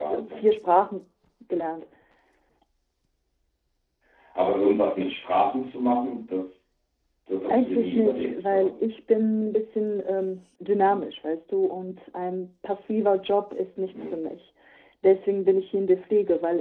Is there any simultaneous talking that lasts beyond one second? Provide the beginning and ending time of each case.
7.5-8.8

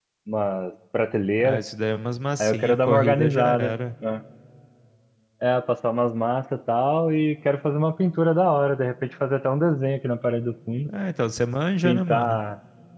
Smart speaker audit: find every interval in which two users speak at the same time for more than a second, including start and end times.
2.4-3.7

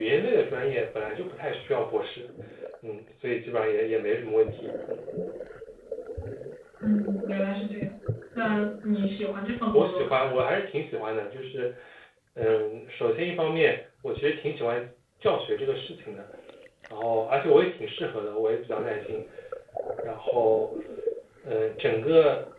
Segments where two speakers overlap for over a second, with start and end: none

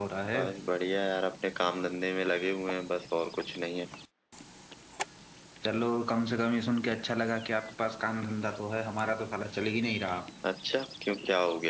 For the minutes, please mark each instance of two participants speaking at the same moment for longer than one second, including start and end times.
none

